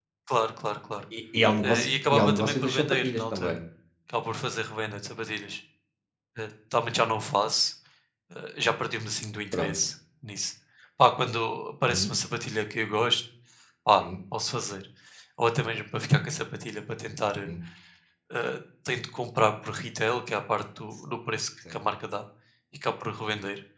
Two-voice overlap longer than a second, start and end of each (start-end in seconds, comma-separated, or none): 1.6-3.6